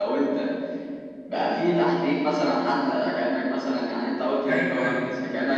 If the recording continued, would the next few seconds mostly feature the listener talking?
No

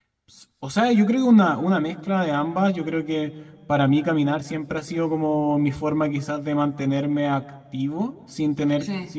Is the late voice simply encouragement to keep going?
Yes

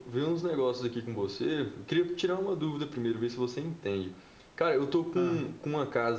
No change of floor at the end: Yes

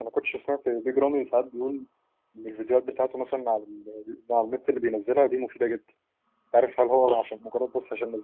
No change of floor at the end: Yes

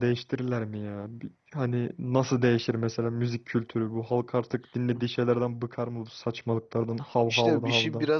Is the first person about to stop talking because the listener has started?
Yes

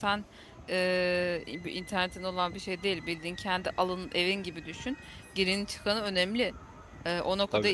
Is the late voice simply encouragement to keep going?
Yes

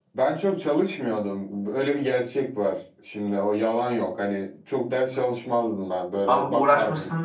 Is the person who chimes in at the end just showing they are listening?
No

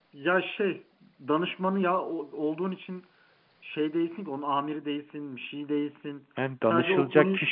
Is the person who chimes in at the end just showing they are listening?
No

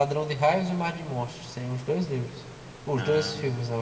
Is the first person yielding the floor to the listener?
No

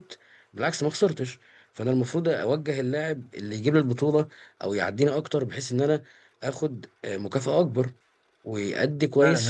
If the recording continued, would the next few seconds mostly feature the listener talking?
Yes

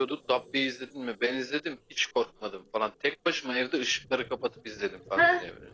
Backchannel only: No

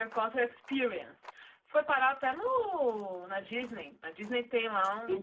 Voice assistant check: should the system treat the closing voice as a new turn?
Yes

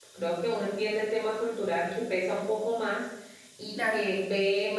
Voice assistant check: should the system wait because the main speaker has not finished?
Yes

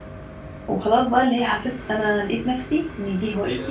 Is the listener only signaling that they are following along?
No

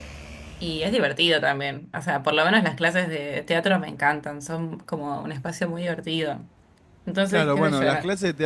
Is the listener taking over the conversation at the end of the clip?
Yes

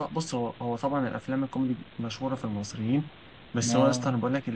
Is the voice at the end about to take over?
No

